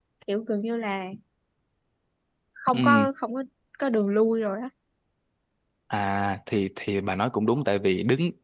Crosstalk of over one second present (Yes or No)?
No